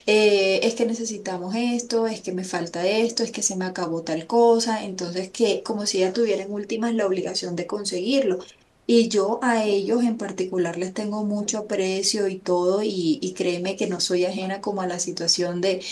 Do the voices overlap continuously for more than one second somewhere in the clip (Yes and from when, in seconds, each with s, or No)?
No